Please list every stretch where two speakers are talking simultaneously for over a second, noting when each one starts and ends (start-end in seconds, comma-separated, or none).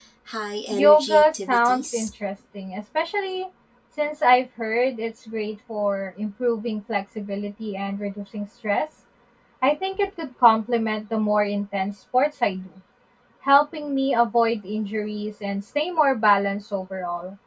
0.7-2.1